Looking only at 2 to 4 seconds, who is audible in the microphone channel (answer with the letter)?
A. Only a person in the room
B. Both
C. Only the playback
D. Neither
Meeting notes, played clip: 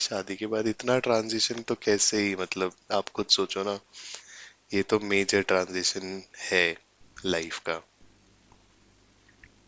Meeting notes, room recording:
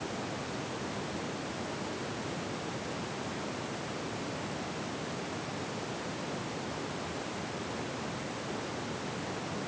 D